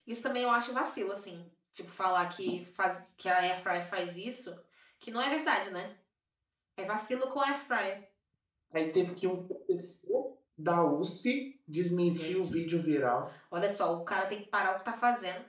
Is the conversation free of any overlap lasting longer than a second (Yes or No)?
Yes